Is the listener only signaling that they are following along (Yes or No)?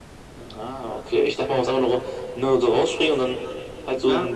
No